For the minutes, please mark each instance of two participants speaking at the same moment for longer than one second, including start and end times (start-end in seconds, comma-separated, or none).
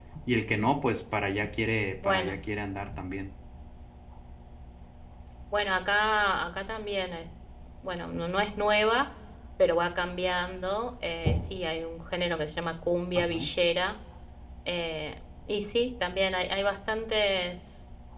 none